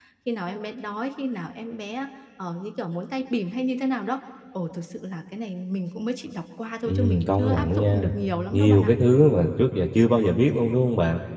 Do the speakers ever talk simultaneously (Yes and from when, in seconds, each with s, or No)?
Yes, from 6.9 s